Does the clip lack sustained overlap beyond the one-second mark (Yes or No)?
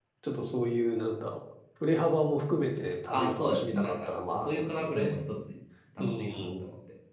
No